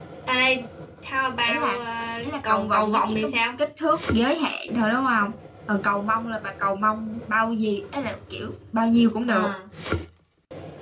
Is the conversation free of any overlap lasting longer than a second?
No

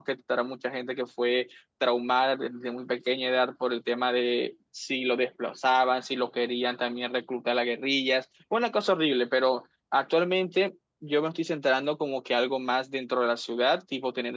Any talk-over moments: No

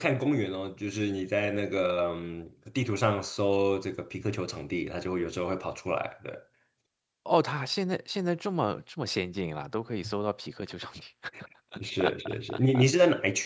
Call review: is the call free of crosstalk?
Yes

